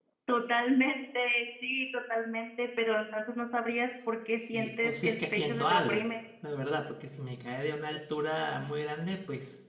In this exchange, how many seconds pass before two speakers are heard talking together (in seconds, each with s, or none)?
4.5 s